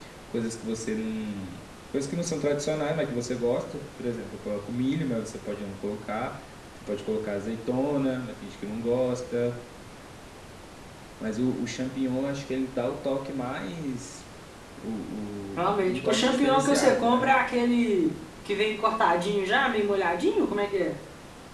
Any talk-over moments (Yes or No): Yes